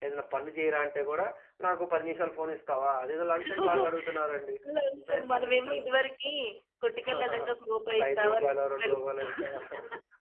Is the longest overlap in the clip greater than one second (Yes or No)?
Yes